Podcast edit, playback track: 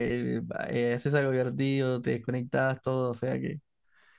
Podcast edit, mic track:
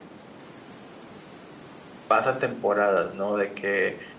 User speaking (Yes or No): Yes